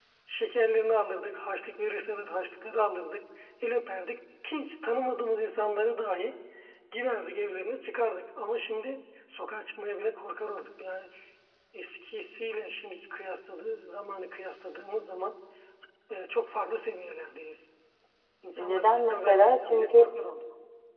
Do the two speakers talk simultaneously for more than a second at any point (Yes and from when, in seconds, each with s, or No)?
Yes, from 18.6 s